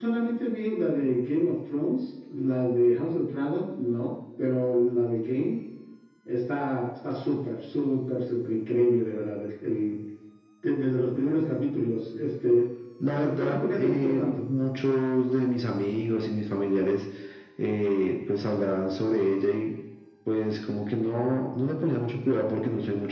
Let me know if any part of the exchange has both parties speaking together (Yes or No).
Yes